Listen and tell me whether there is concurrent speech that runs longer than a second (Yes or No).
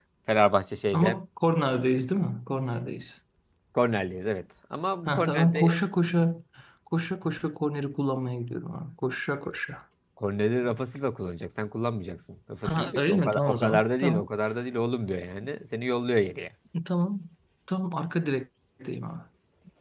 Yes